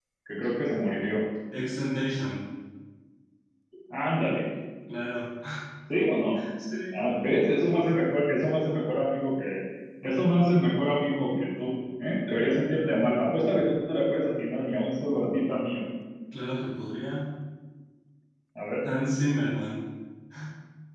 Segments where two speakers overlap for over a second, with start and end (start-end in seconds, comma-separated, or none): none